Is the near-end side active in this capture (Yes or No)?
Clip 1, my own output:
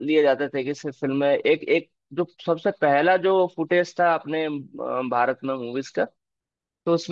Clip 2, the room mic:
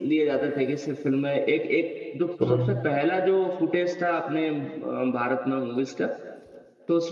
Yes